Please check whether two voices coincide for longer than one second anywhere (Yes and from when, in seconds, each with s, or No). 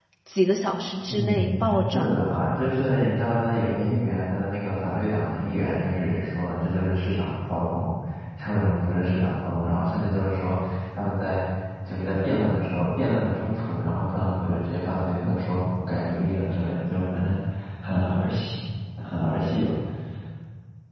Yes, from 1.1 s